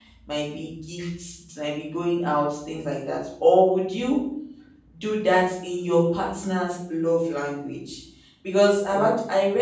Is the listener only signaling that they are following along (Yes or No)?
Yes